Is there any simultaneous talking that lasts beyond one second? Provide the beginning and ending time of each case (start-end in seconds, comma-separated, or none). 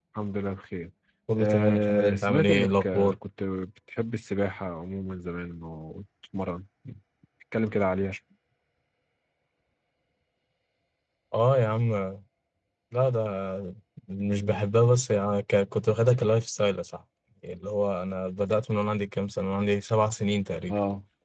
1.4-3.1